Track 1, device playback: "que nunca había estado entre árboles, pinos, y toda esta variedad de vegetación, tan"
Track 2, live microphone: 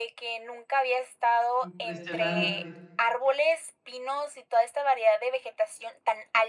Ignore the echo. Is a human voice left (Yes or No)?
Yes